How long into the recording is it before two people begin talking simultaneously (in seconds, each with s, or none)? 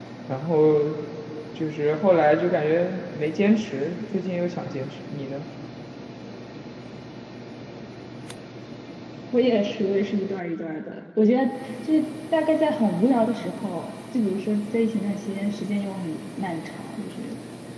none